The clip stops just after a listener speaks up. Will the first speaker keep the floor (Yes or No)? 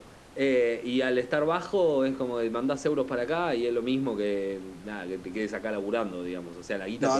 No